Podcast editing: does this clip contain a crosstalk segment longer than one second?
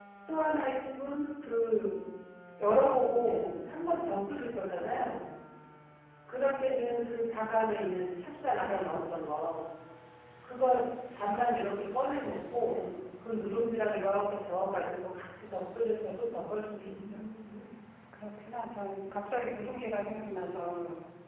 No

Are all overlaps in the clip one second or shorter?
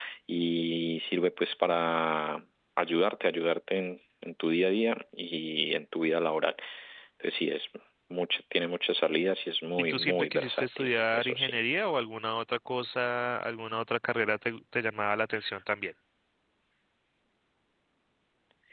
No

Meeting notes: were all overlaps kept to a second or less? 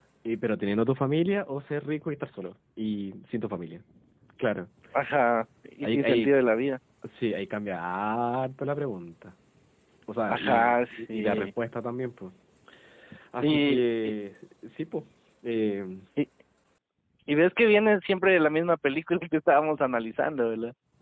No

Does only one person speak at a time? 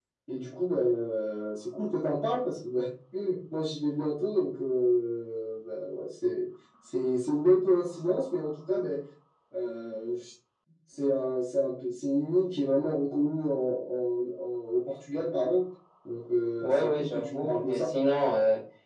No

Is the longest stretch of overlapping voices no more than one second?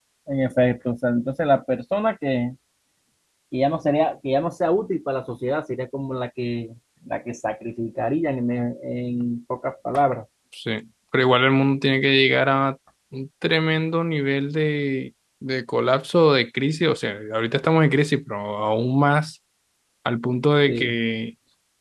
Yes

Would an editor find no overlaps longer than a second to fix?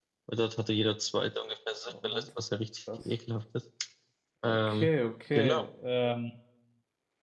Yes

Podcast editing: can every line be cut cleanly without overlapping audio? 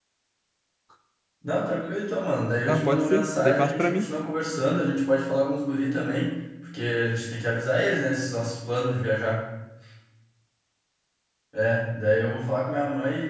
No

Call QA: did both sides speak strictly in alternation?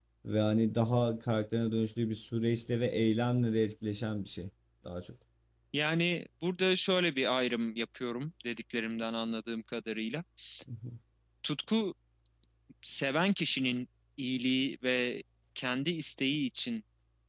Yes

